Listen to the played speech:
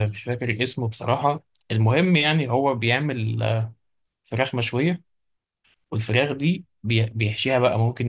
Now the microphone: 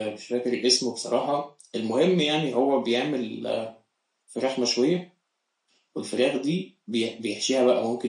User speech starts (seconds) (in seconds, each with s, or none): none